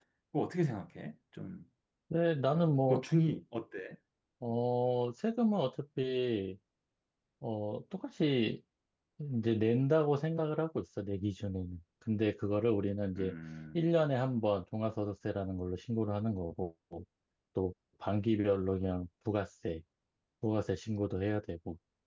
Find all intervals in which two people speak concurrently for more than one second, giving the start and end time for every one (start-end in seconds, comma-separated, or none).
none